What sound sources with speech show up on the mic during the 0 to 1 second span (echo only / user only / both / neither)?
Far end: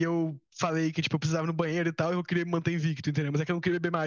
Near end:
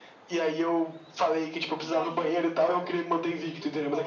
echo only